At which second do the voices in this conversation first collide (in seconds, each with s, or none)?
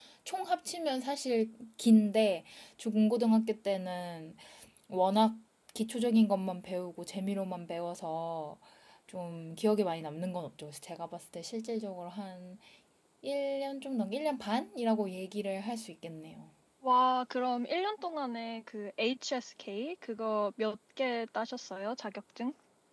none